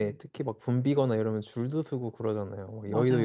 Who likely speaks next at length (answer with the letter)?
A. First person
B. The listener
B